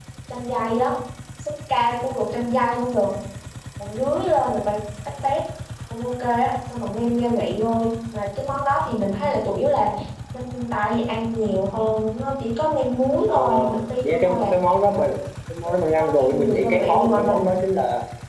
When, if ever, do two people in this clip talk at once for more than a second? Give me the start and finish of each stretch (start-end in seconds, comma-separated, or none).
15.7-17.5